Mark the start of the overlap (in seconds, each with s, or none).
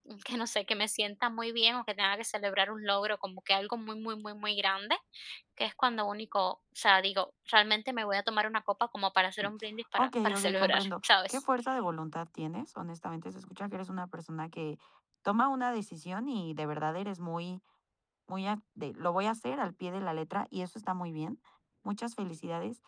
10.0 s